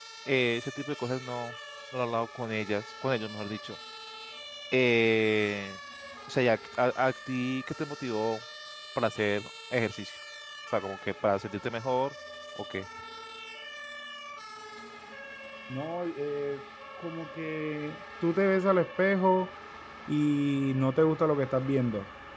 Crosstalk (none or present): none